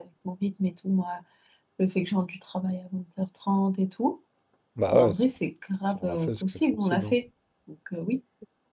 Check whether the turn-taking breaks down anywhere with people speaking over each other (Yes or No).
Yes